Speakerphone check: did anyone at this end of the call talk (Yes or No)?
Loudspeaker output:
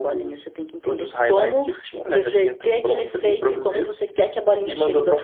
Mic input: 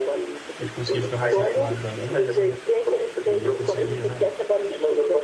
Yes